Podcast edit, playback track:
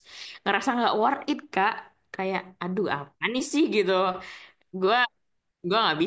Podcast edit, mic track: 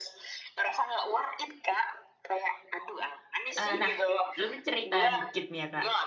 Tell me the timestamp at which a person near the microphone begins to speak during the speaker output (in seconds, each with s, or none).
3.6 s